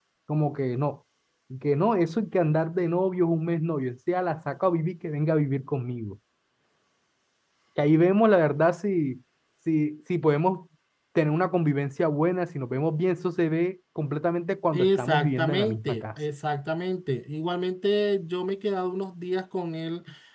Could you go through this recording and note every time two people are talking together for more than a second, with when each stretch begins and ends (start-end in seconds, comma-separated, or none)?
14.7-16.0